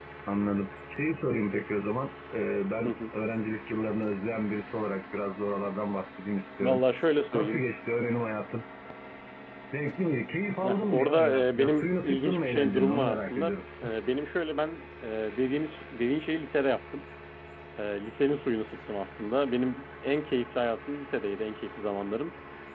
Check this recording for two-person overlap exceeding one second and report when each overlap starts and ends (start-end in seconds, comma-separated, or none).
10.6-13.5